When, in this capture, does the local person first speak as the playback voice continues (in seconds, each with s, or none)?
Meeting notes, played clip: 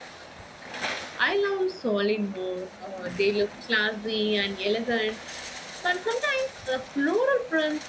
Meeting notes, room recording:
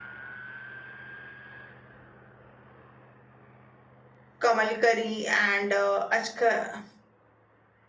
4.4 s